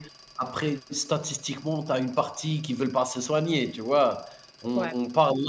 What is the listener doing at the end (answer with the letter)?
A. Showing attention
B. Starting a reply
A